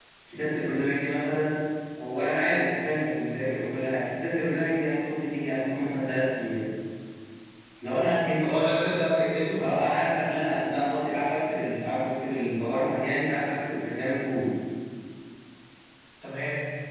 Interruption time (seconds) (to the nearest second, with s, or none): none